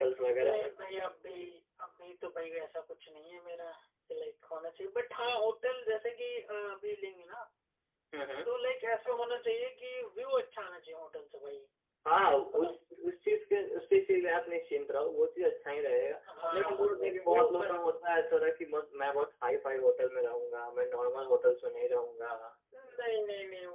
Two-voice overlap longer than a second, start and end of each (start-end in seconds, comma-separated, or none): 16.5-17.9